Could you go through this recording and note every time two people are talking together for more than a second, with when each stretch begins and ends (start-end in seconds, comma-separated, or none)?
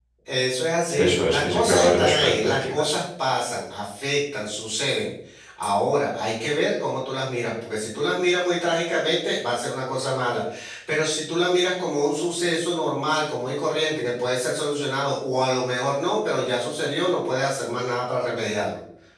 0.9-3.0